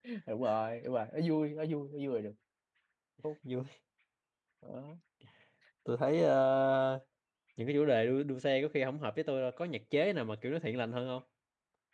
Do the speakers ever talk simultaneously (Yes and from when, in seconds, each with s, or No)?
No